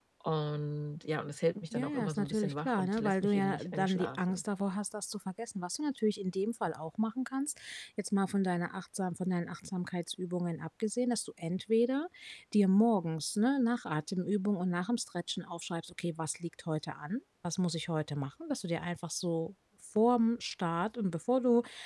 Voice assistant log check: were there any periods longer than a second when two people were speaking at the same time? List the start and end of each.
1.7-4.4

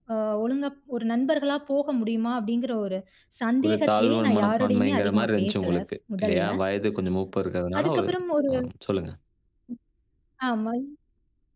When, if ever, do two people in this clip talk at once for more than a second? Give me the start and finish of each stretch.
3.6-5.7

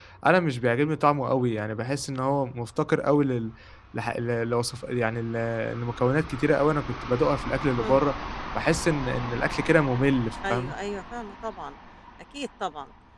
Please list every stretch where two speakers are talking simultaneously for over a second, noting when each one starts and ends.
none

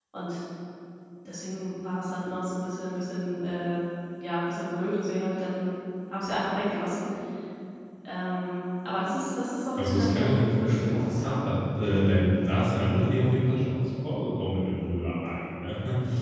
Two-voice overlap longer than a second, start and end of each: 9.8-11.4

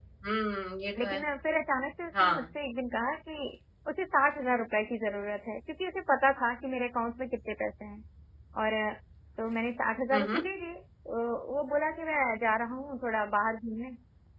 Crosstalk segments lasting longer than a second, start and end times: none

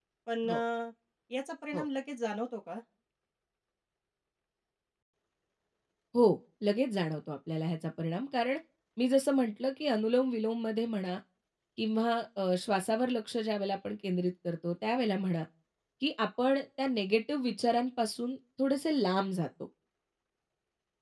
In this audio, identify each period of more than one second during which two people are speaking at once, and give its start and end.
none

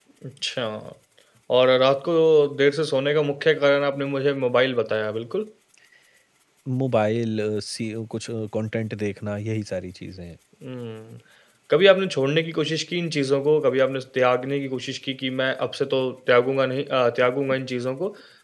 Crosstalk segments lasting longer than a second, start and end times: none

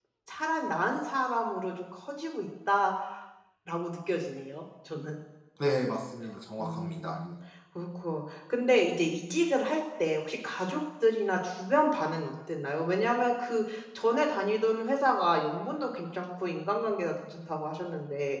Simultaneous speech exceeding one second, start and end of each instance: none

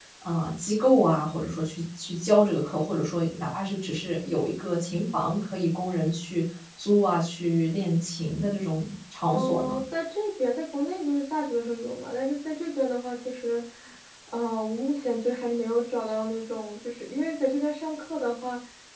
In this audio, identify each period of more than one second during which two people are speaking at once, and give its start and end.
none

